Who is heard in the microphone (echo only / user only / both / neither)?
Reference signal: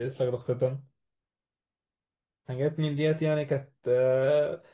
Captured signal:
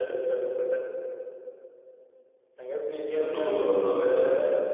both